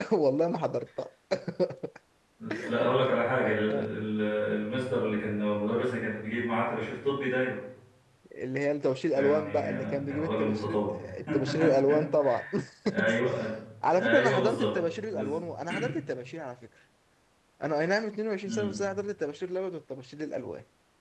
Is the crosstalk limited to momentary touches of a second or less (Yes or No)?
No